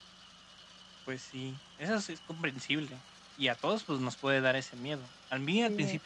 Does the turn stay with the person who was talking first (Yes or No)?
Yes